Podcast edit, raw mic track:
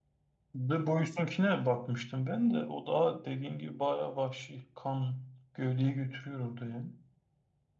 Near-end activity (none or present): present